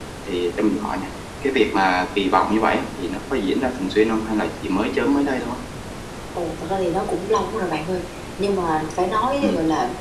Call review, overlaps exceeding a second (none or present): none